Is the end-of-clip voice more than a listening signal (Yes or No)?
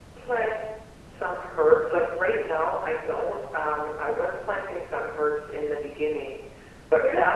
No